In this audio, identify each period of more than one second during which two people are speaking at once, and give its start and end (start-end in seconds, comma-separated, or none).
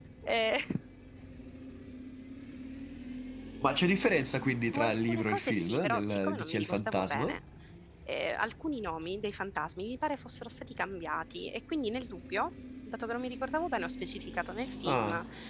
4.7-7.3